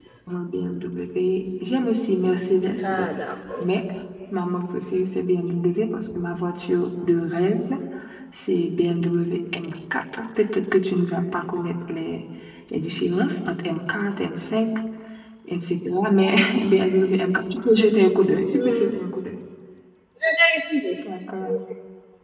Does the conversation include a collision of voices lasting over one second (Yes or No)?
No